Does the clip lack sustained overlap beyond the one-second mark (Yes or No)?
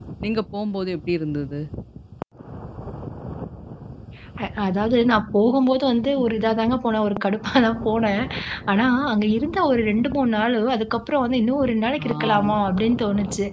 Yes